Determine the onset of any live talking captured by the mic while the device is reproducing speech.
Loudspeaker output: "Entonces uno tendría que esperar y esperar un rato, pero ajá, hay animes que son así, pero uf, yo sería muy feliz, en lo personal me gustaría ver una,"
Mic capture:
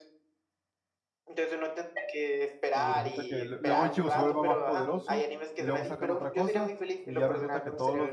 2.7 s

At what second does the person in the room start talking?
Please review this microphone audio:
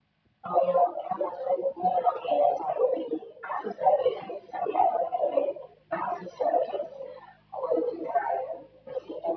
none

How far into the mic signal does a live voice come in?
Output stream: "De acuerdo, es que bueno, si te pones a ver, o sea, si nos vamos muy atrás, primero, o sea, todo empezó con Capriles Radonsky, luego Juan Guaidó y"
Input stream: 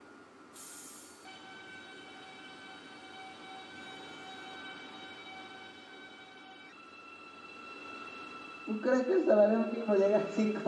8.6 s

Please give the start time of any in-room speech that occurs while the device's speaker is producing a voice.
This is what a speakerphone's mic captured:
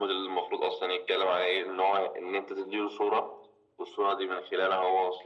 none

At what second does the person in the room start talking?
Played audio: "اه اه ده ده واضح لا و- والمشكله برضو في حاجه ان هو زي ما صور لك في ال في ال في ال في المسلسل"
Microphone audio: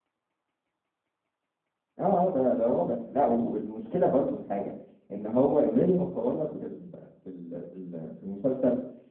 none

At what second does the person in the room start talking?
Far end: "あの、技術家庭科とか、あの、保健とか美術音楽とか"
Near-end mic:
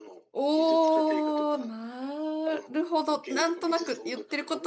0.3 s

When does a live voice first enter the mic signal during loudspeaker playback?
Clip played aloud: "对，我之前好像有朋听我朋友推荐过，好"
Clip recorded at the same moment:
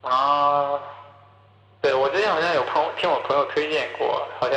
none

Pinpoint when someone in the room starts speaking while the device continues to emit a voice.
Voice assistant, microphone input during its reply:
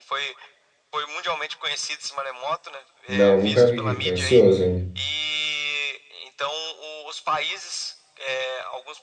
3.1 s

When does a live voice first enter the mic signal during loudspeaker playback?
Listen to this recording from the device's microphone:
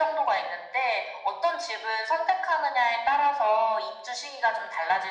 none

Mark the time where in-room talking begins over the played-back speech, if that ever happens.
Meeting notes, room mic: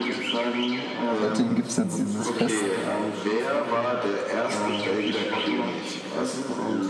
1.2 s

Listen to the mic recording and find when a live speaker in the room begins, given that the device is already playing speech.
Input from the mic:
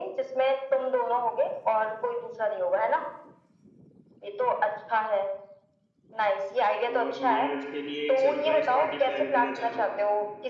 6.9 s

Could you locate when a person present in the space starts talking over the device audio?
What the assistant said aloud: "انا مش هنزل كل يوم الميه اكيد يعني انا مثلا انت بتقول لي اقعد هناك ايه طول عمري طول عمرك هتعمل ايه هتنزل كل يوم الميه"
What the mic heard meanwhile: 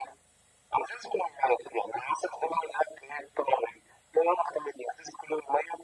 none

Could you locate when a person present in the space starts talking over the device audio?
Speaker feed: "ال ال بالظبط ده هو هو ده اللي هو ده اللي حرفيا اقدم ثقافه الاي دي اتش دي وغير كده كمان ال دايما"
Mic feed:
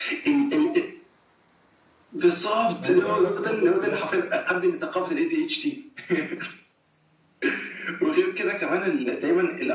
2.8 s

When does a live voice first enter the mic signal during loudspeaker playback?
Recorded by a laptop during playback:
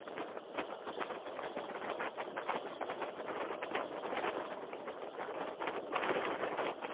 none

